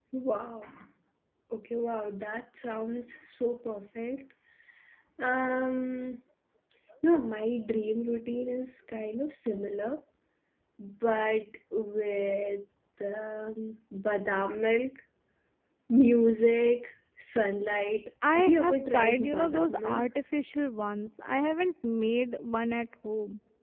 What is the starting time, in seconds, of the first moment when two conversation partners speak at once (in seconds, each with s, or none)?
18.2 s